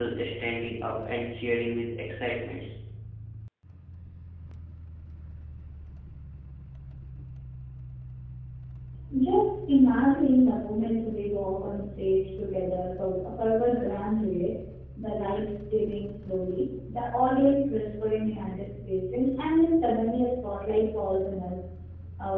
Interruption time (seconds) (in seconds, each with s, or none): none